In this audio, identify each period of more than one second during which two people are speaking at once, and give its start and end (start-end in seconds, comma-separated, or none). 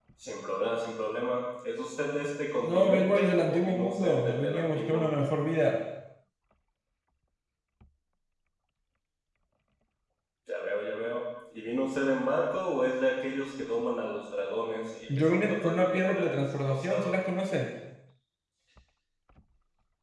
2.6-5.1, 15.2-17.2